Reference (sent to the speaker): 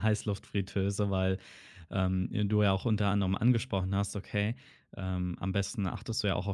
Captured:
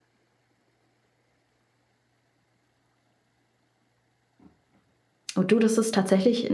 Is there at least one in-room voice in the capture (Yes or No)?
Yes